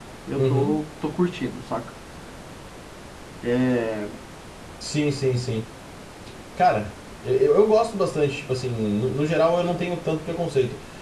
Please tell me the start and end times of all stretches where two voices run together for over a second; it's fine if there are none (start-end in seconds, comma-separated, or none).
none